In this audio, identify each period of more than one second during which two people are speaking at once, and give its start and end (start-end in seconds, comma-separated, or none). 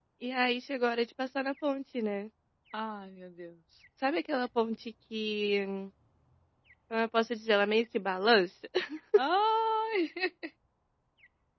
none